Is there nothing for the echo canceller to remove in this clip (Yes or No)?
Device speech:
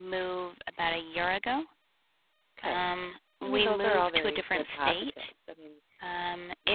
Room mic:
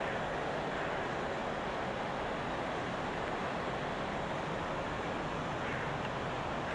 Yes